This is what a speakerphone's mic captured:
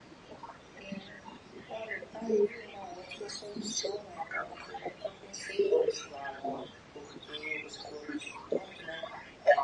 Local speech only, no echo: none

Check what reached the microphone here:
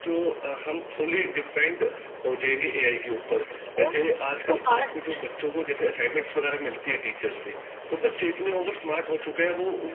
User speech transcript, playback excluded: ओह सो फास्ट

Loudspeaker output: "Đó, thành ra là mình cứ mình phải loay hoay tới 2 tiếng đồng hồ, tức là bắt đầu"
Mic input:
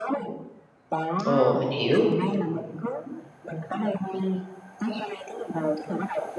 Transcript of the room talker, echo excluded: ồ, mình hiểu.

